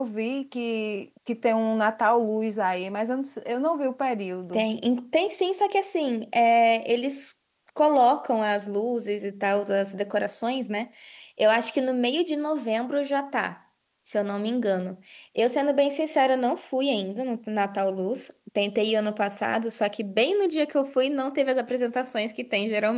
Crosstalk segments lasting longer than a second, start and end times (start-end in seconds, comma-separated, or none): none